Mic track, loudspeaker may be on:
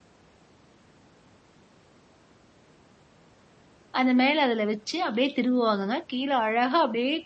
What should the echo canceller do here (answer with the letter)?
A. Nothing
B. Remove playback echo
A